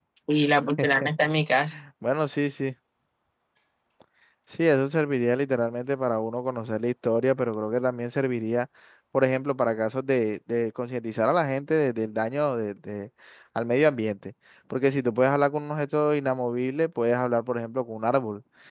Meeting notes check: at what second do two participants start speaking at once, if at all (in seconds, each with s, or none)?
none